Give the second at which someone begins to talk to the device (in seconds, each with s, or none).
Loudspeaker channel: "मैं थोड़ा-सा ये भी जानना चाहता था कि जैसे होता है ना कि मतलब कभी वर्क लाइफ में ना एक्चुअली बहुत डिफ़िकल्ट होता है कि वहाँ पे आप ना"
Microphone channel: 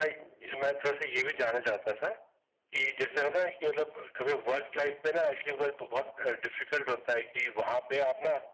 none